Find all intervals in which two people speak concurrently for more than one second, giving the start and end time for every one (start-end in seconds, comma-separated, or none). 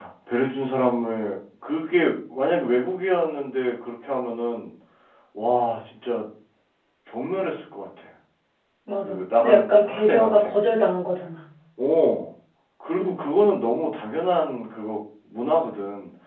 9.0-10.5